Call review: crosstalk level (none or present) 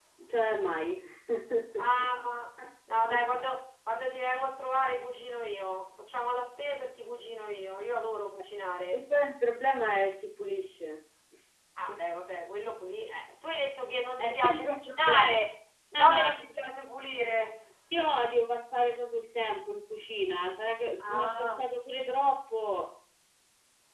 present